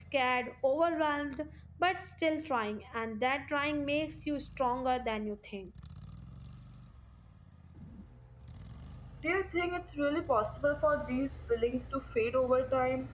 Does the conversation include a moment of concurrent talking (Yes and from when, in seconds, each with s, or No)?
No